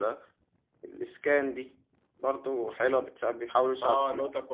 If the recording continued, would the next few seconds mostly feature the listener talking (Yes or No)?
Yes